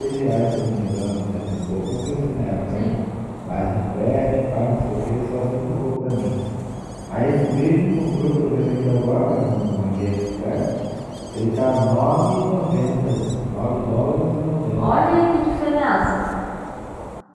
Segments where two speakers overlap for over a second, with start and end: none

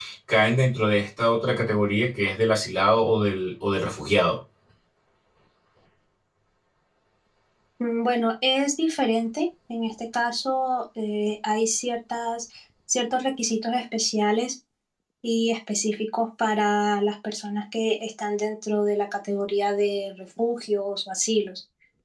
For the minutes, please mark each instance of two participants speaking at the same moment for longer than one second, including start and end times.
none

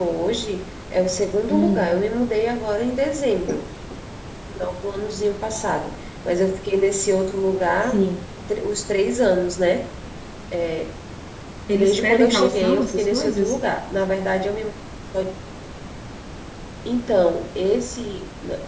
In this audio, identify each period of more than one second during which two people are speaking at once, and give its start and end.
11.7-13.6

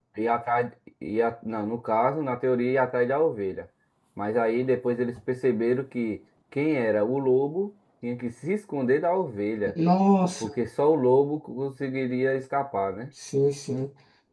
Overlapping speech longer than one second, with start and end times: none

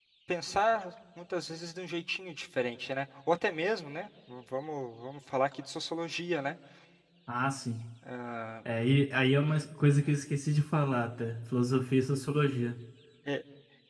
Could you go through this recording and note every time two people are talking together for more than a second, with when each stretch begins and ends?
none

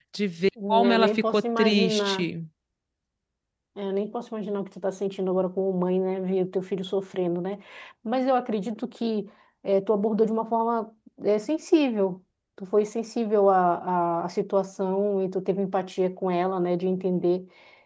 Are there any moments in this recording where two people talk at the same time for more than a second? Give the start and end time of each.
0.7-2.3

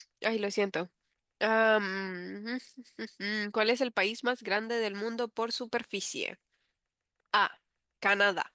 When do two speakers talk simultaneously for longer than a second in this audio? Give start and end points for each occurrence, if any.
none

